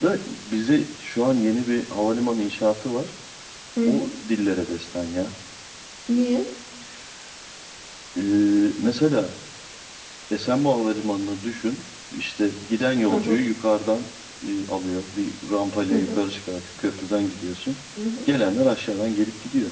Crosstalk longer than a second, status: none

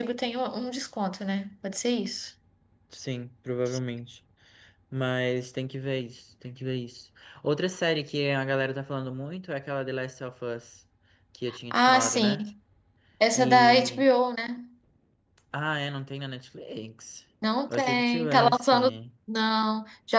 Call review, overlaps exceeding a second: present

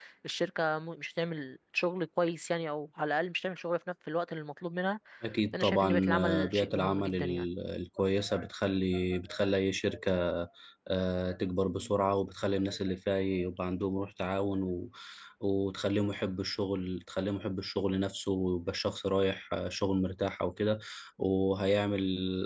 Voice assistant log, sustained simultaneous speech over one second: present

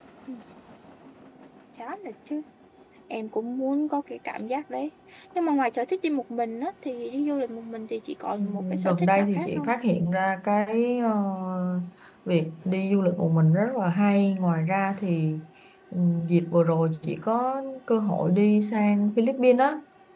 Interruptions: present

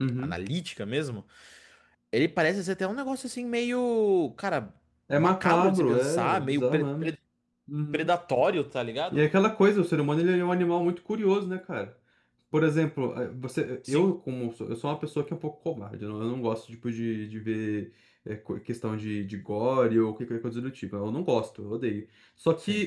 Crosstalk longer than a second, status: present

